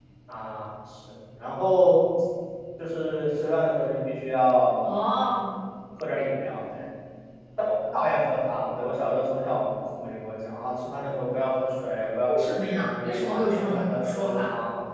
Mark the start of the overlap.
12.3 s

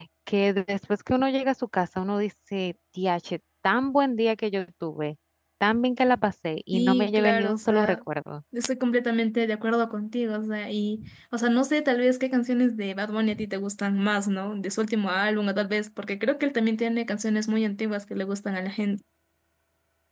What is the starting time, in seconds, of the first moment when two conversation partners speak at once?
6.7 s

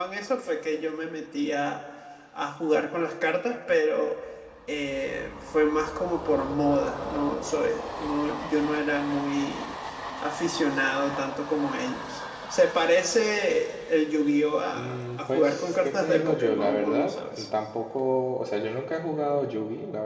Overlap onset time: 14.7 s

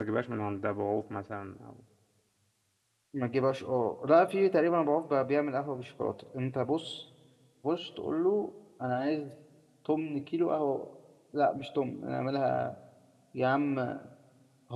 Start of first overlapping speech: none

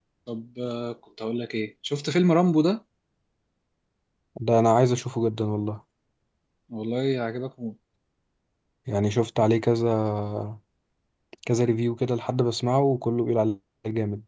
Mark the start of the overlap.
none

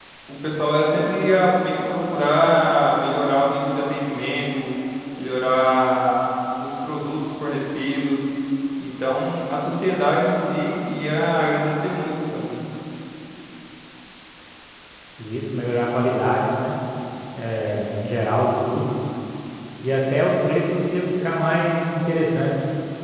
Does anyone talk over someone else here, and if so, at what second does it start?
none

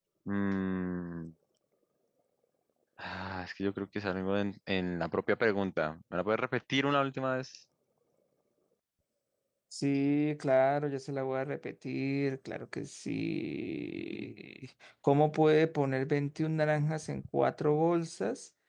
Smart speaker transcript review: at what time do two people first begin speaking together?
none

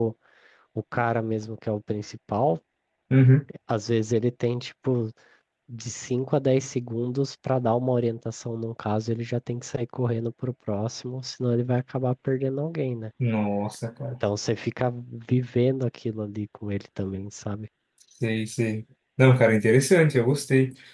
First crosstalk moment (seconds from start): none

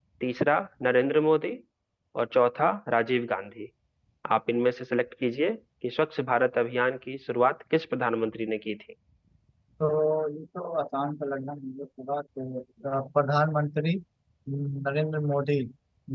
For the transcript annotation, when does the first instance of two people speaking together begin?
none

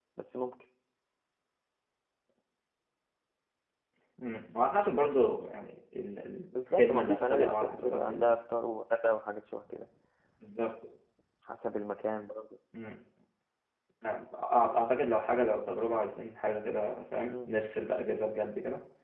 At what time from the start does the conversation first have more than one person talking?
6.6 s

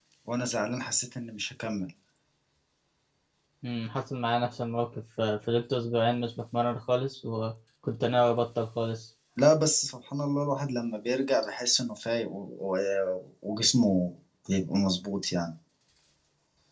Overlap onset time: none

